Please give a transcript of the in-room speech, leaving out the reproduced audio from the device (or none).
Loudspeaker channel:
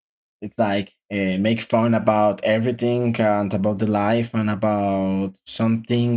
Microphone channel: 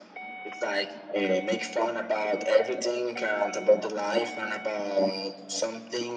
none